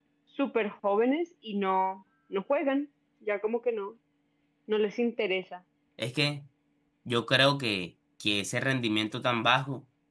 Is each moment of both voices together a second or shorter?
Yes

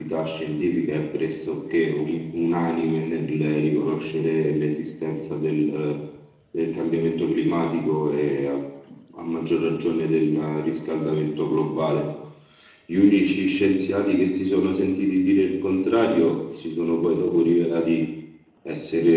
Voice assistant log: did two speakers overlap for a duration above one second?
No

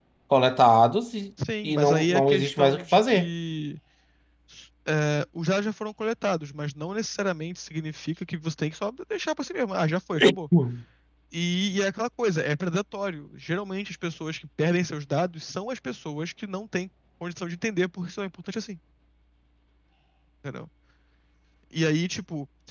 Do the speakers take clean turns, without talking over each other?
No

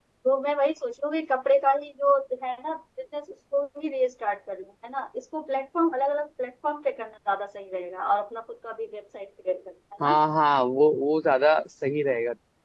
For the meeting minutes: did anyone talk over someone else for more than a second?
No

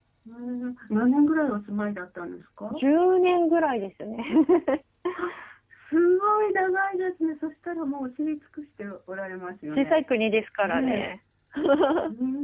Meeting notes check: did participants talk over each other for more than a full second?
No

